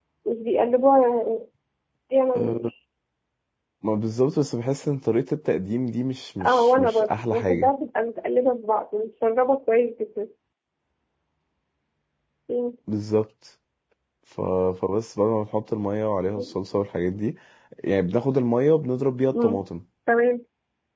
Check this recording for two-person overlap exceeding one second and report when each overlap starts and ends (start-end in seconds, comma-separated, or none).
6.5-7.7